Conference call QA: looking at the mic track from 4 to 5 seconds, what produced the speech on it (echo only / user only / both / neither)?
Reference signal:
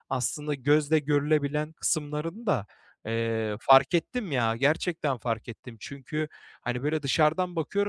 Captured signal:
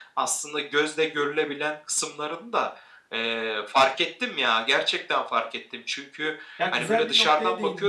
echo only